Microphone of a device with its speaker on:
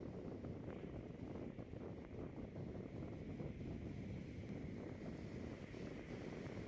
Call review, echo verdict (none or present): none